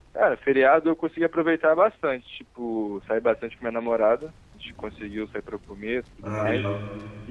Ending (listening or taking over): listening